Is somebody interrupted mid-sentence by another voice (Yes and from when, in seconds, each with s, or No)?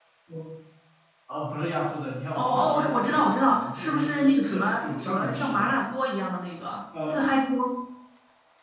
Yes, from 2.4 s